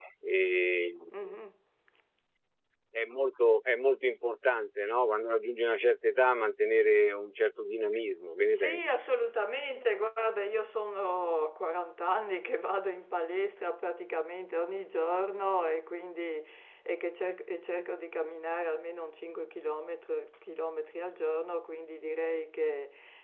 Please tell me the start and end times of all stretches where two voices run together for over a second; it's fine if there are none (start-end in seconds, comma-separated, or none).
none